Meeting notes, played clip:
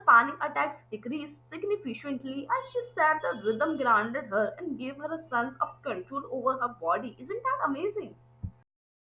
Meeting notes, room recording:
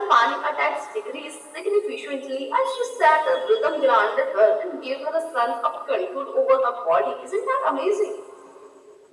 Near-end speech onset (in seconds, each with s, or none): none